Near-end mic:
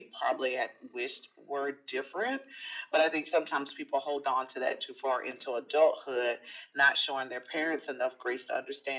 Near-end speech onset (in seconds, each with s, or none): none